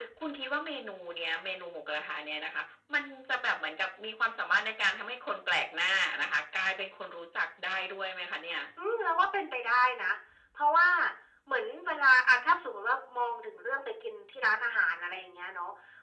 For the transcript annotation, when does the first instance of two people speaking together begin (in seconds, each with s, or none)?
none